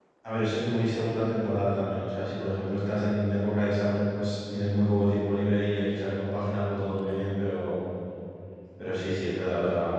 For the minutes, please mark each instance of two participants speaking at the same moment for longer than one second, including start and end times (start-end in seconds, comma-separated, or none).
none